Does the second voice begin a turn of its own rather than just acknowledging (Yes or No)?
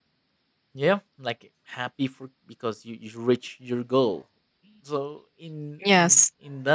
No